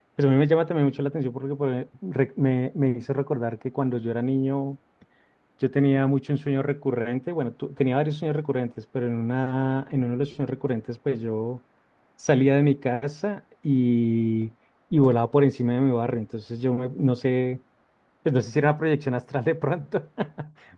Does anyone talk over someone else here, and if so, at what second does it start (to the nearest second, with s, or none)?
none